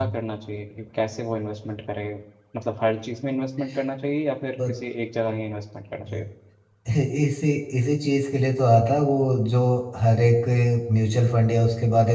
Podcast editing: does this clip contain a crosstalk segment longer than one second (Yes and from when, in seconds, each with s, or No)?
No